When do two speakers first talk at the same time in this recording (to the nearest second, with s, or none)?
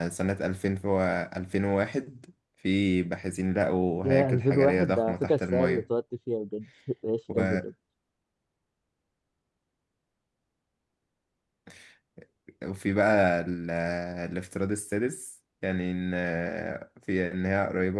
4 s